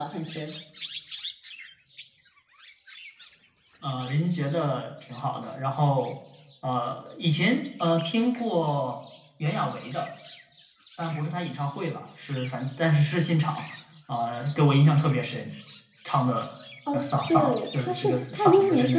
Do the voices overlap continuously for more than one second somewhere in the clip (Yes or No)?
Yes